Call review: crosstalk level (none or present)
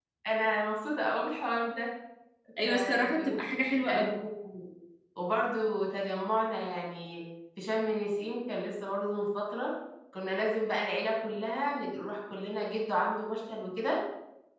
present